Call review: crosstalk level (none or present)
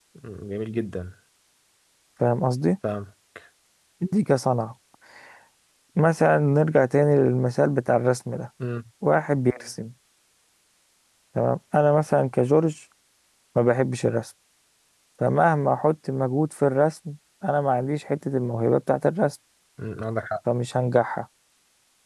none